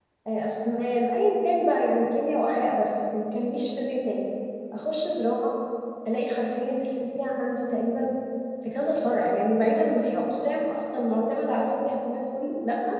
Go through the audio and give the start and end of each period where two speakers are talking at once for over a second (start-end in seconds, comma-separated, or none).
none